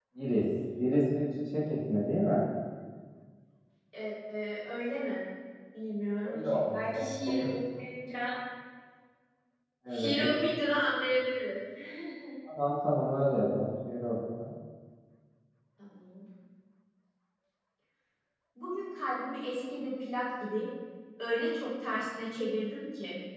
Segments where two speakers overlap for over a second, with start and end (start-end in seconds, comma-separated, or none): 6.2-7.5